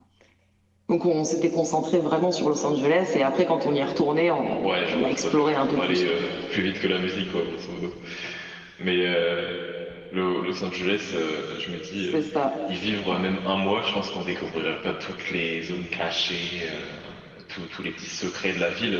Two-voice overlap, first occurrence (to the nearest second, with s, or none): 5 s